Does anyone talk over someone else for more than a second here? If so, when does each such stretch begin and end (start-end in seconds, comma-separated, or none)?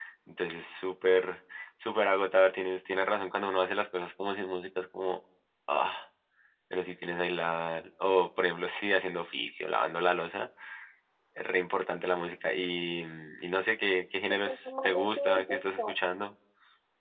14.5-15.9